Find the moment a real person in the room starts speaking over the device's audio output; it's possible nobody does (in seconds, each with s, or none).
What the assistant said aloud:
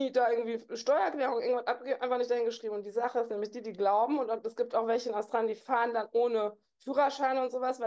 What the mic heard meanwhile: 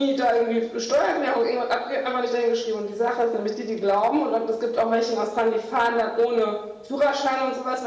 none